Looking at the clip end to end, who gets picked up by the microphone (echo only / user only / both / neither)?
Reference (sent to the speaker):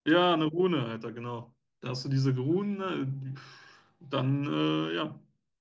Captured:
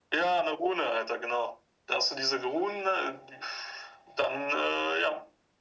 echo only